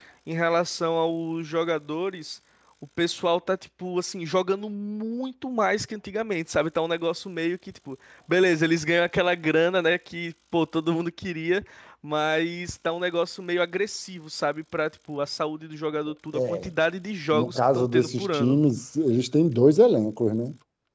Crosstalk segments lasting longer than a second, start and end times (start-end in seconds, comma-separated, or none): 17.3-18.6